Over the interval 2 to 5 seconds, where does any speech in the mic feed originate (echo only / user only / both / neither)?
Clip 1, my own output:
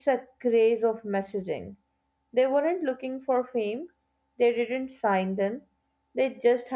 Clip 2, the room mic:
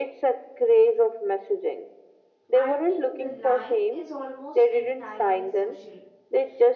both